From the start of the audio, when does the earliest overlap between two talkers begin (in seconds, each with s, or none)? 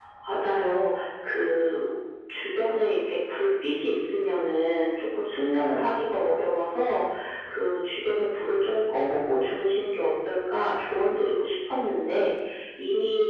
none